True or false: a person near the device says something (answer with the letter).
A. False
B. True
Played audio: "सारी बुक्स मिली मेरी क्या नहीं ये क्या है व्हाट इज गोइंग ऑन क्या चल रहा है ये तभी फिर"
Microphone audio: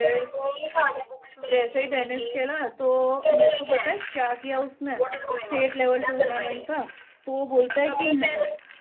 B